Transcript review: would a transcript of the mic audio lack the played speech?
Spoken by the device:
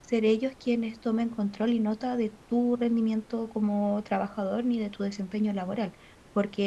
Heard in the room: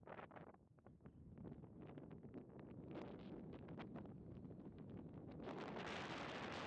Yes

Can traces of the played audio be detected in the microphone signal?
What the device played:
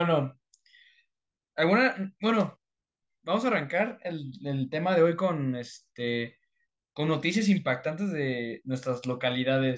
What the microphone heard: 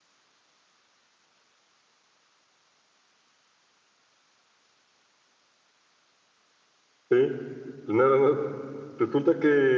No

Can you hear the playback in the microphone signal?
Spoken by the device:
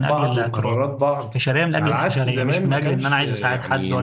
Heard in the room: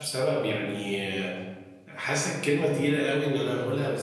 No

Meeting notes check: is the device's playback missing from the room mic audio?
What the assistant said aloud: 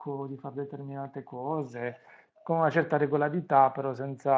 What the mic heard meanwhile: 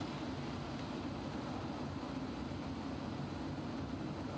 Yes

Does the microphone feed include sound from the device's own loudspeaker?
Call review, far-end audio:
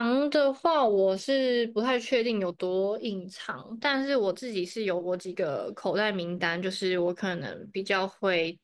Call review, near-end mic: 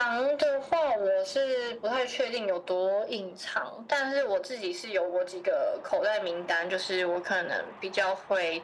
Yes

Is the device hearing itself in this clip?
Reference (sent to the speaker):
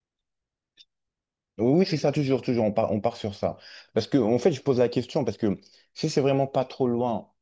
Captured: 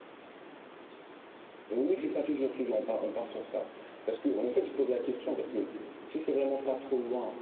Yes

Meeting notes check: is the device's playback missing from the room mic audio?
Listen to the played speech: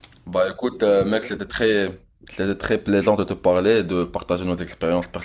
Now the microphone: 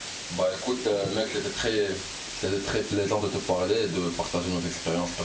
No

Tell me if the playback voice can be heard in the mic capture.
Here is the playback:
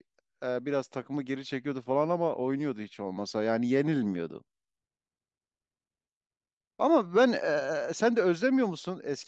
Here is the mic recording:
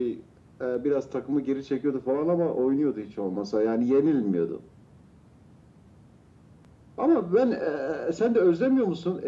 Yes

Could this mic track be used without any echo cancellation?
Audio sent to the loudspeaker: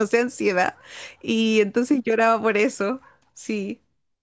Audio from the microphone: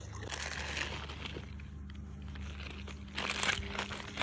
Yes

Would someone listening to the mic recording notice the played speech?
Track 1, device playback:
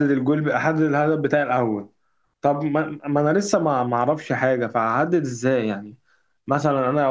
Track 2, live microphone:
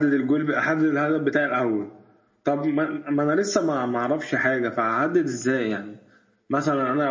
Yes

